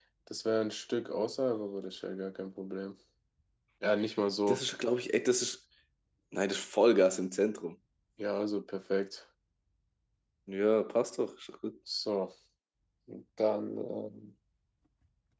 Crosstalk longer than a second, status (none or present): none